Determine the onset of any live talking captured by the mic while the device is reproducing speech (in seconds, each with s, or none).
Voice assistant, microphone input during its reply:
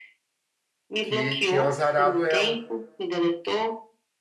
1.0 s